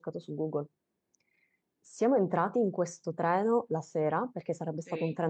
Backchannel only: Yes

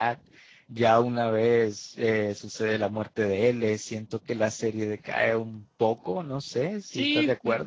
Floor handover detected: Yes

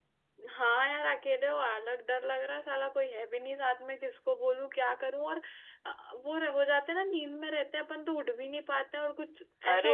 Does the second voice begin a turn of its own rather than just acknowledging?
Yes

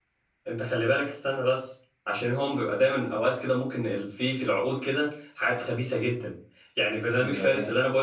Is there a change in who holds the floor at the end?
No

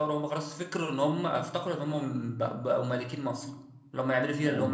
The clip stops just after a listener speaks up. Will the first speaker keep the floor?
Yes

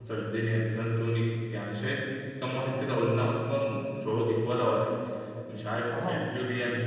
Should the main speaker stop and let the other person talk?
No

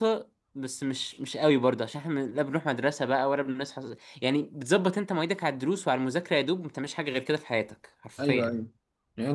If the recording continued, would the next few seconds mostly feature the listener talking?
Yes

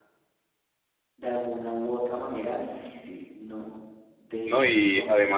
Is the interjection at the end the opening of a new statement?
Yes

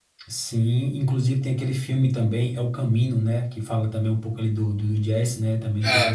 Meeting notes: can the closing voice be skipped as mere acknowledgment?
No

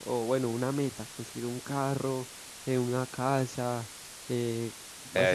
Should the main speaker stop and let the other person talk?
Yes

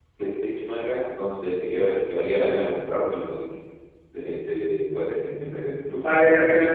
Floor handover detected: Yes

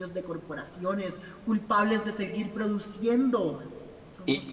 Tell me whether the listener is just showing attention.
Yes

